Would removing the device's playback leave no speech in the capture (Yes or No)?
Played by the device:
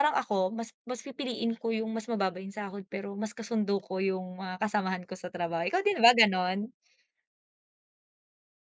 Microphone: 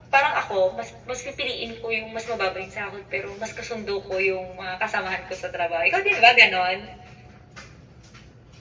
Yes